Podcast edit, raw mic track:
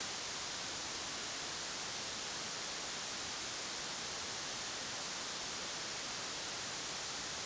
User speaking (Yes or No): No